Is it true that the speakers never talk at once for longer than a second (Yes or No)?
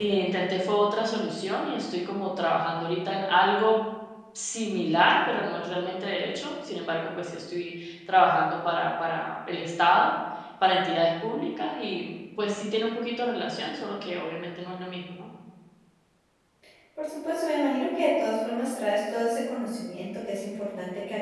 Yes